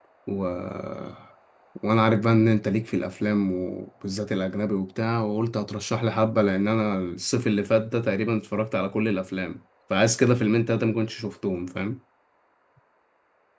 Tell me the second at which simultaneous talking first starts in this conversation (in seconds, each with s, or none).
none